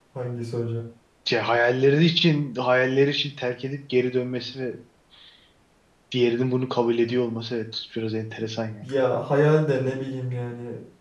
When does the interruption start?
none

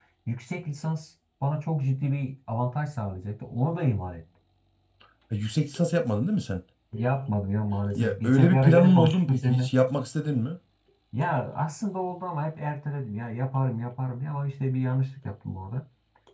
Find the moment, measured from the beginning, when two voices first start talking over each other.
8.0 s

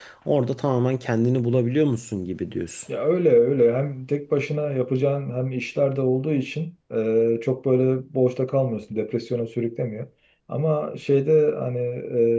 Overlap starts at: none

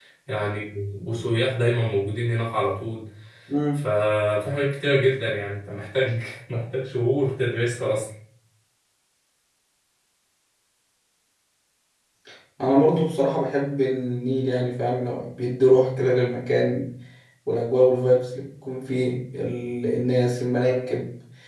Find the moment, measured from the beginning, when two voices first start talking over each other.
none

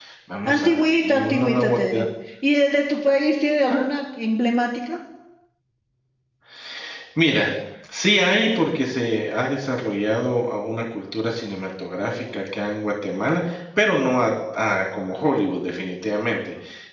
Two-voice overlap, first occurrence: 0.5 s

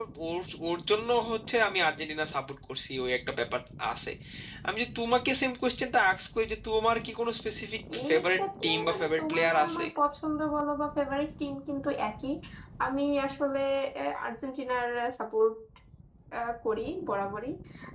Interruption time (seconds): 7.9 s

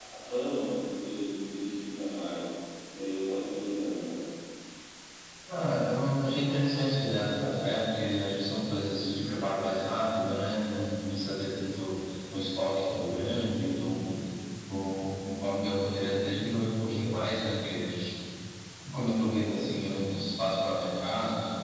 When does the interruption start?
none

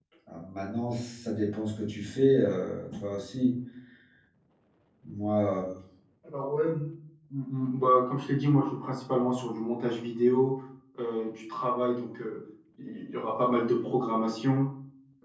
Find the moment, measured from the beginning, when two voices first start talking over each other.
none

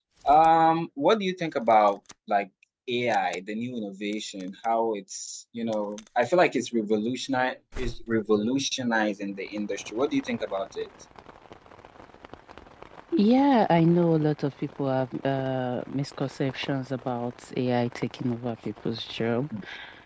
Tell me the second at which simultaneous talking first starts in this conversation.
none

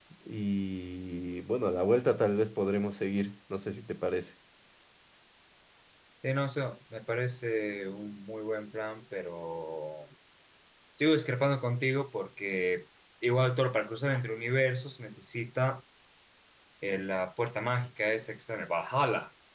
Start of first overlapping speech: none

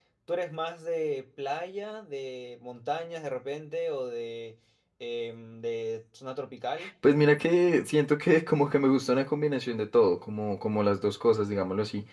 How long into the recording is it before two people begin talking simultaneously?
none

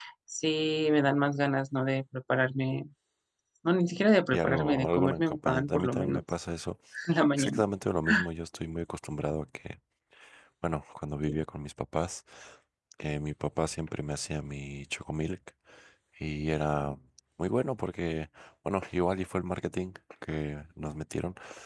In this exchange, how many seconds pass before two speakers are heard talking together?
4.3 s

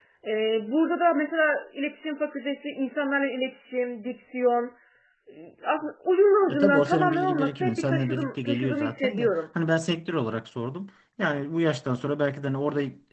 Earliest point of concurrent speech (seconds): 6.5 s

